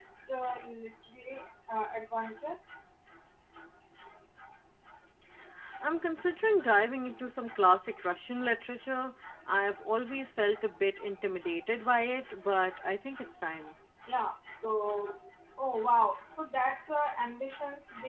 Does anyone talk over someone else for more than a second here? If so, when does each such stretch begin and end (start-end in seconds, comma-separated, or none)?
none